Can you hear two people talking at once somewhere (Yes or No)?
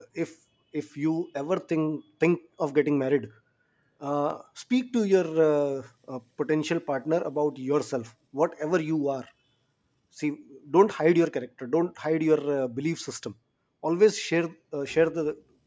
No